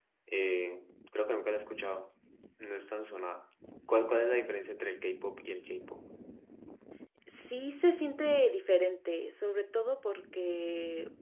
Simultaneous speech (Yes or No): No